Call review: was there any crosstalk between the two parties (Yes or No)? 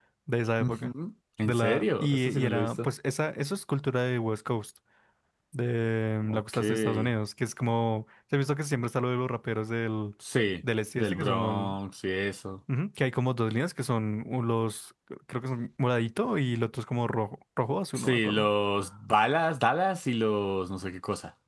Yes